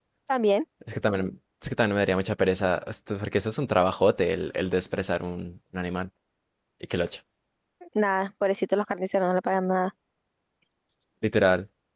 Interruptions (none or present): none